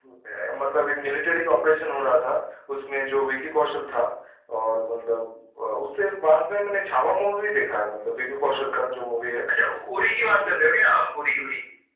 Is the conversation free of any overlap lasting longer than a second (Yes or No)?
Yes